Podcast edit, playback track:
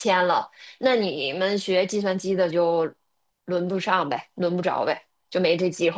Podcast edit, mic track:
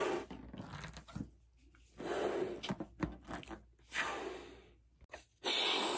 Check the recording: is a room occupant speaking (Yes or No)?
No